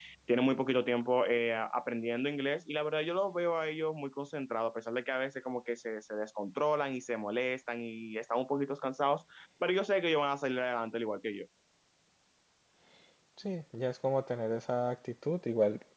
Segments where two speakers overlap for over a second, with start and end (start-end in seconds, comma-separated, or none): none